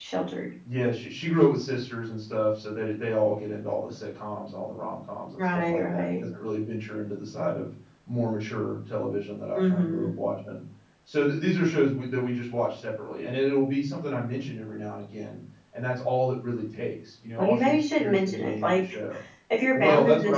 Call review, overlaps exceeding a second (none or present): present